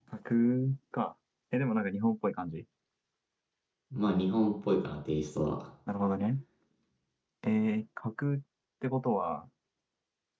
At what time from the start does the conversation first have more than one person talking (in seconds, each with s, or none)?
none